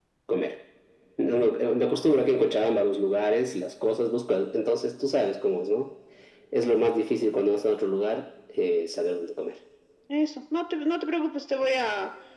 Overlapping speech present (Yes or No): No